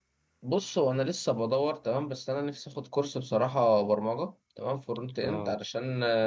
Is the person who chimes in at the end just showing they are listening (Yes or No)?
Yes